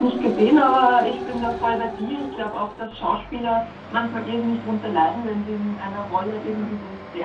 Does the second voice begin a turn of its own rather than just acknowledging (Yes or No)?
No